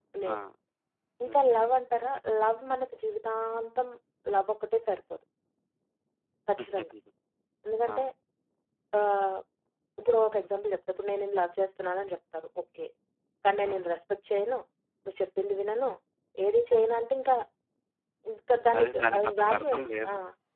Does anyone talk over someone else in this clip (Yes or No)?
Yes